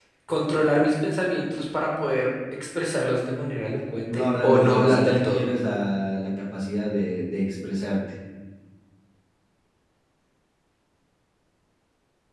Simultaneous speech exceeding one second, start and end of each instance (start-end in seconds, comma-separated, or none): 4.1-5.4